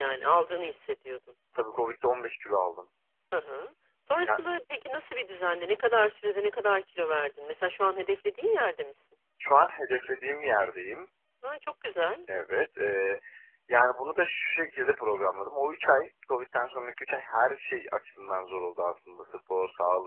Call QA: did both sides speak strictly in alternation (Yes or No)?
Yes